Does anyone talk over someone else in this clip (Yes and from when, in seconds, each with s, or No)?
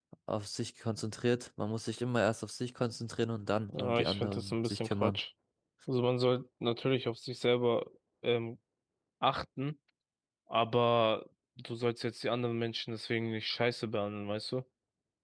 Yes, from 3.7 s